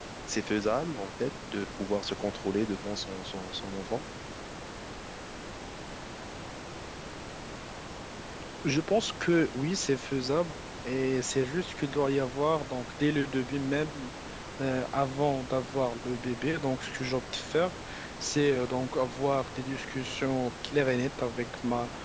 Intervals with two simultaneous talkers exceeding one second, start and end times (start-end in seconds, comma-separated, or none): none